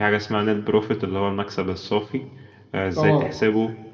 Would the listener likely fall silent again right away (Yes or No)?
Yes